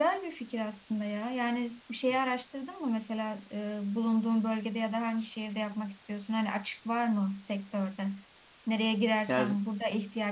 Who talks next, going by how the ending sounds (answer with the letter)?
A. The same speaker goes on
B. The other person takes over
A